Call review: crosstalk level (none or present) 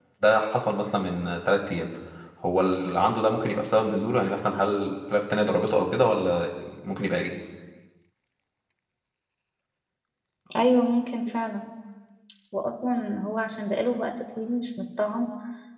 none